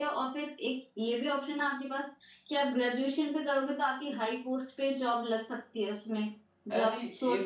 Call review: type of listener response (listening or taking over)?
taking over